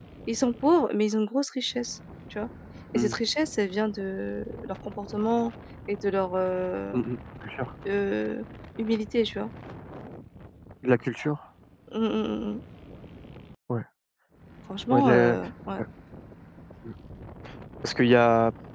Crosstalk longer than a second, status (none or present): none